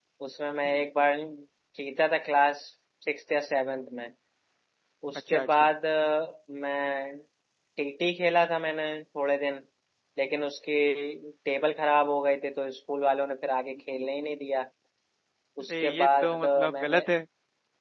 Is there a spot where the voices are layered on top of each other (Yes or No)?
Yes